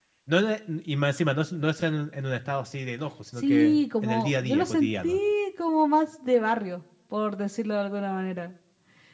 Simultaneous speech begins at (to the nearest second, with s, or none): 3 s